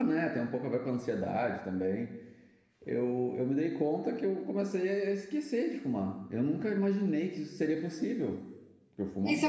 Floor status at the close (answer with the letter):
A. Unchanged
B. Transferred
B